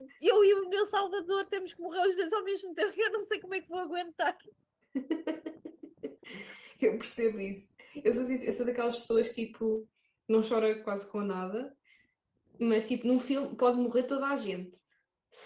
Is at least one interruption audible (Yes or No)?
No